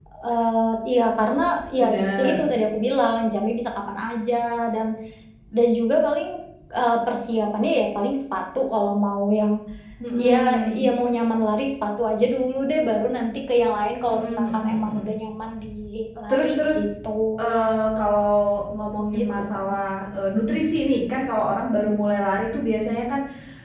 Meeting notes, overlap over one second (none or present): present